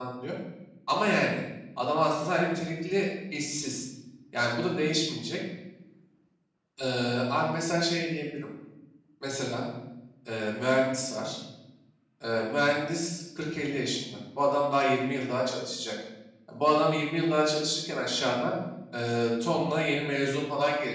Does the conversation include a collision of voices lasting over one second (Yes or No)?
No